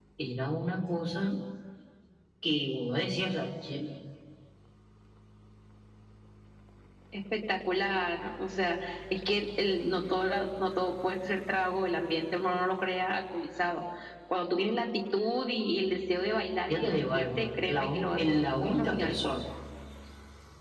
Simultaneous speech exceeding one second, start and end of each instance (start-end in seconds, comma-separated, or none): 16.7-19.3